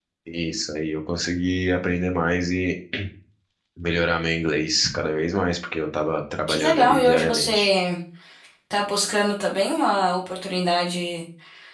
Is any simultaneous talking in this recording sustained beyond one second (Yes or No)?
Yes